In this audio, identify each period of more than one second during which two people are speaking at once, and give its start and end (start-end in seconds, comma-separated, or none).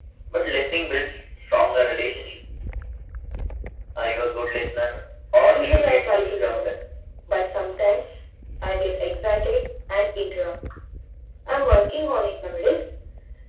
5.5-6.7